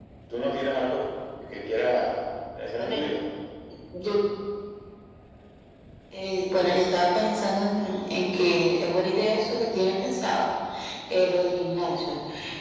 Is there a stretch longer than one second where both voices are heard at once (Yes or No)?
No